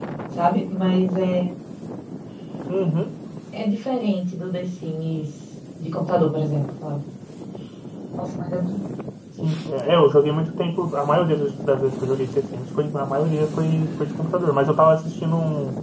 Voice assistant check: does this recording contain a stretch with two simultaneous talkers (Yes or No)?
No